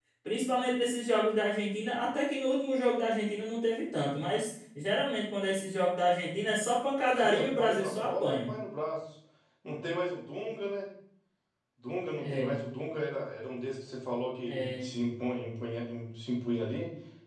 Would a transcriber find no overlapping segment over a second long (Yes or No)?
No